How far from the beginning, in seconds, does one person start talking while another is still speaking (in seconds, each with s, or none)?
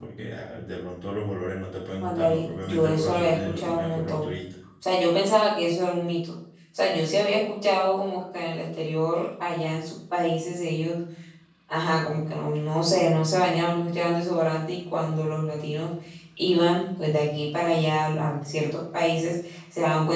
2.0 s